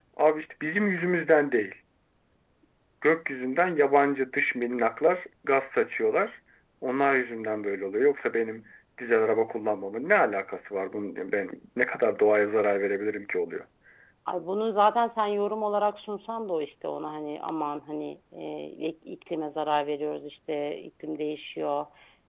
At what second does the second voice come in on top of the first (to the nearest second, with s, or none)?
none